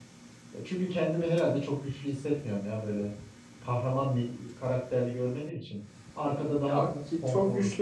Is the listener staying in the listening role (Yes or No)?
No